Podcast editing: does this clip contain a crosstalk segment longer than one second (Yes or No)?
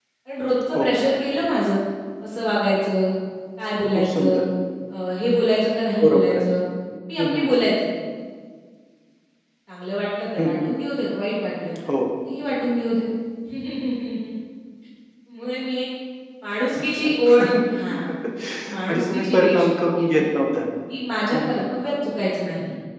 Yes